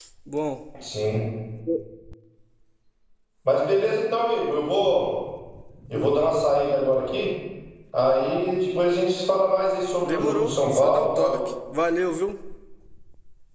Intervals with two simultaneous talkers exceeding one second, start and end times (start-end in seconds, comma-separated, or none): 10.0-11.4